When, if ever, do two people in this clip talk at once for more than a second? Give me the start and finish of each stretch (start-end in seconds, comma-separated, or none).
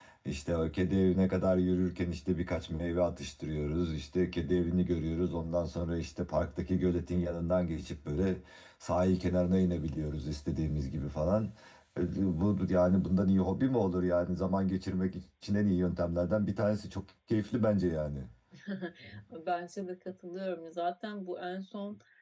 none